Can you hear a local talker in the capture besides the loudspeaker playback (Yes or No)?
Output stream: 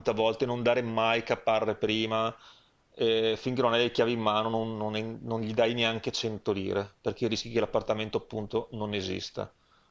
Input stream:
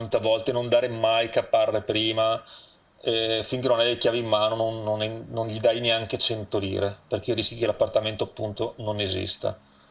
No